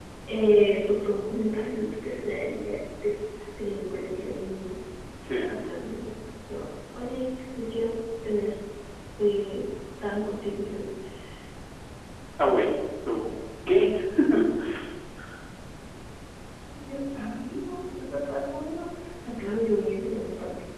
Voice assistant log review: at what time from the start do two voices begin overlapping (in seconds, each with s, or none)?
none